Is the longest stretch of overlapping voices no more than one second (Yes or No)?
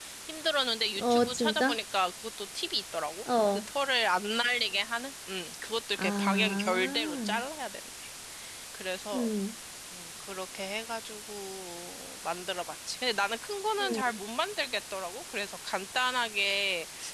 No